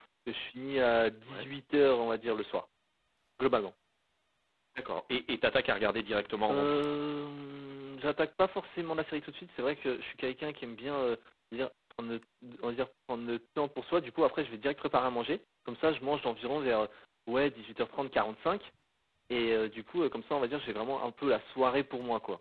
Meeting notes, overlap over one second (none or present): none